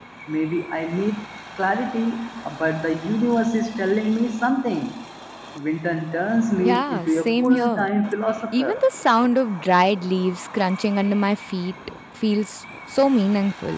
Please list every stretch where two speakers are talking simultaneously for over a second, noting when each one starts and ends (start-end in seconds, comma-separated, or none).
6.6-7.9